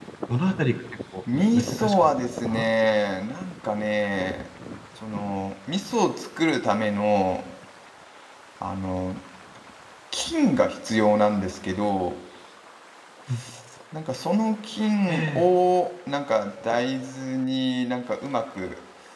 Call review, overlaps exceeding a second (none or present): present